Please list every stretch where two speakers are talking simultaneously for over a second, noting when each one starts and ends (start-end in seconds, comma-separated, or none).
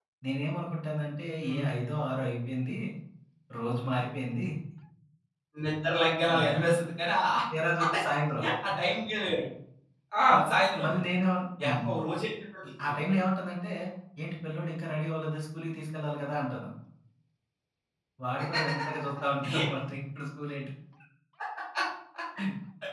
none